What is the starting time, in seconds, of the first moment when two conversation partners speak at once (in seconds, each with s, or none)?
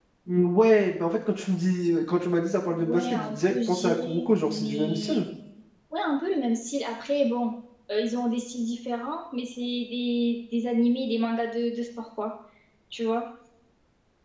2.7 s